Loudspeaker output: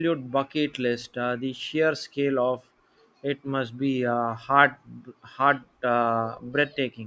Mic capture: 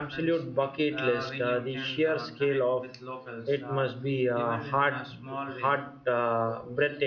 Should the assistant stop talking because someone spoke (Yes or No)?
Yes